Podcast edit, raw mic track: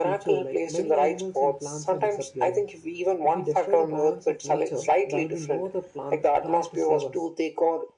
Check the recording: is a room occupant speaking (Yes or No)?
Yes